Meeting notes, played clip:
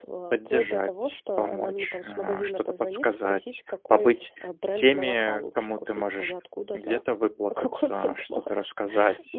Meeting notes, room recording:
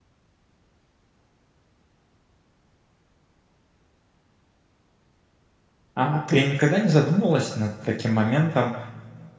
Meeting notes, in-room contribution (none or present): present